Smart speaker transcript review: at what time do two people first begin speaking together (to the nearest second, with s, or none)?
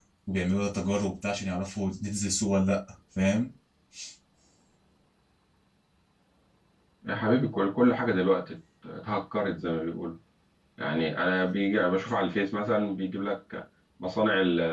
none